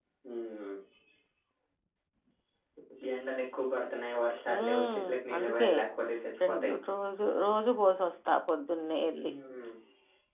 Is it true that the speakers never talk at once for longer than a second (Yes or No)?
No